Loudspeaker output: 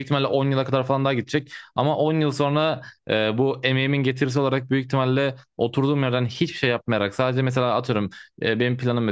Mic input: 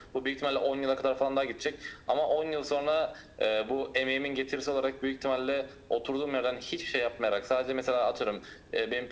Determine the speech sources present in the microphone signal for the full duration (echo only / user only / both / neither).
echo only